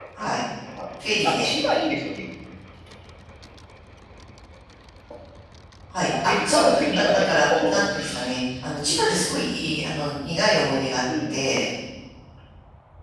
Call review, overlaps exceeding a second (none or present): present